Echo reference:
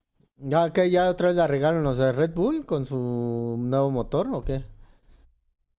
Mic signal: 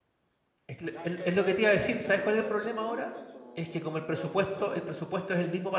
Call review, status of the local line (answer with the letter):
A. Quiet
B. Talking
B